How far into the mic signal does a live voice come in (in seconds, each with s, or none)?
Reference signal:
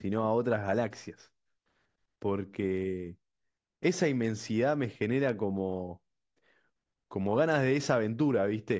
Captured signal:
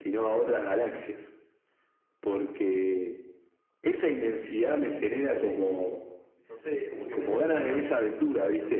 5.2 s